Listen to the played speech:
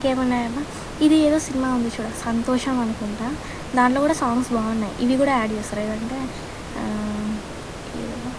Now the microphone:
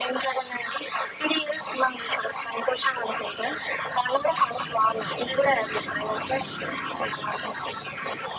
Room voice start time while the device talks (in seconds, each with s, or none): none